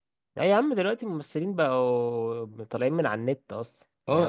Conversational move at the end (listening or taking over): taking over